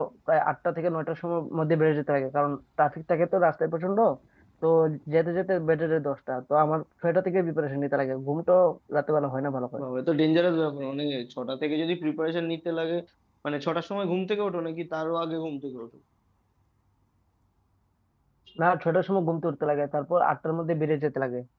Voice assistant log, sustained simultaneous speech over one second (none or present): none